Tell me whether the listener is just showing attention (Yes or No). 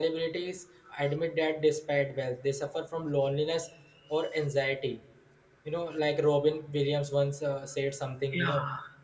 Yes